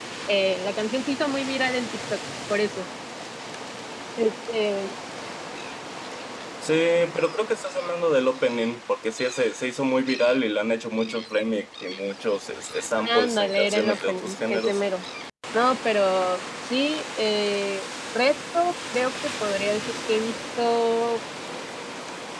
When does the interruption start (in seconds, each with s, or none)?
13.0 s